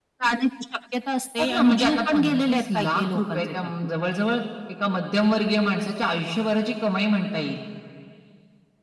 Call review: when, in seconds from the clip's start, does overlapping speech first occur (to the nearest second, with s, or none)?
1 s